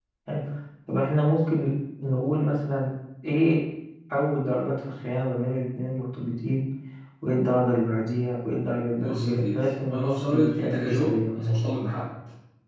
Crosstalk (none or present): present